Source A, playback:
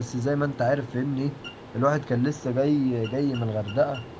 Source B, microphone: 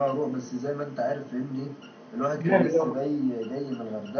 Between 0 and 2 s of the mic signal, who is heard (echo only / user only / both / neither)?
echo only